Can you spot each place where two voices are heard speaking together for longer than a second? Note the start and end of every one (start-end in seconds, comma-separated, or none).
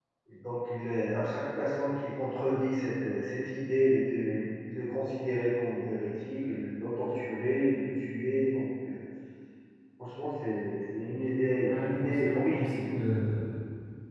11.6-12.9